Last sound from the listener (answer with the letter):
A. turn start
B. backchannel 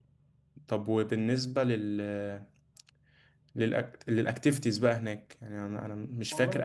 B